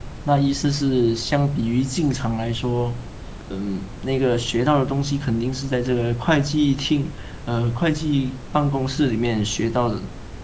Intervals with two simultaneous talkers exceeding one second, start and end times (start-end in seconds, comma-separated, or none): none